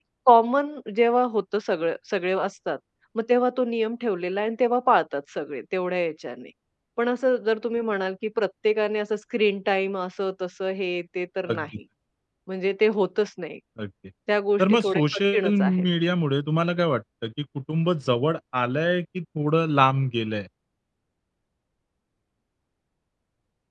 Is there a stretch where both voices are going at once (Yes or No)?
Yes